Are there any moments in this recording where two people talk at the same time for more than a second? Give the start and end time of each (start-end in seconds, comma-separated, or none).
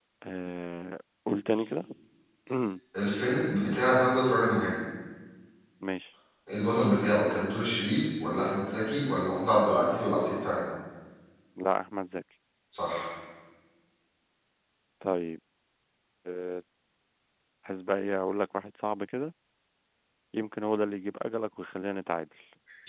none